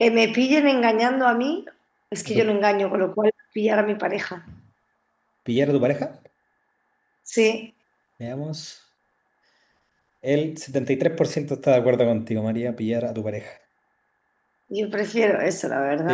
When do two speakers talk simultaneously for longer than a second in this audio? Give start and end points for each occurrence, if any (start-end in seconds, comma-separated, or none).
none